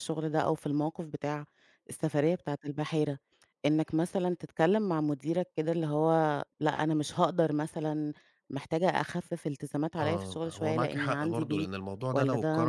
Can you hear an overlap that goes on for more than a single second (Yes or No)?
Yes